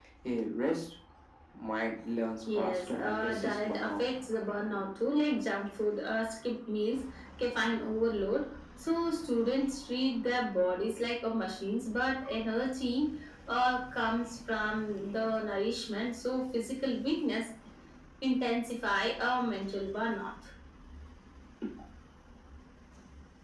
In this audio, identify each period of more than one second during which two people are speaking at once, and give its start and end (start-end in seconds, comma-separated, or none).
2.5-4.0